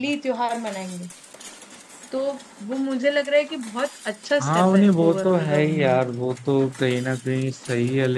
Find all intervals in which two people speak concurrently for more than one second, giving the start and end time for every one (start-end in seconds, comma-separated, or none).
4.4-6.0